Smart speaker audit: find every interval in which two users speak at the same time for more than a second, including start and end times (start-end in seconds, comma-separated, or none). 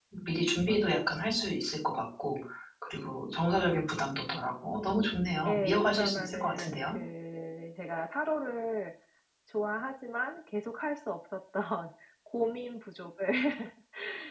5.5-7.0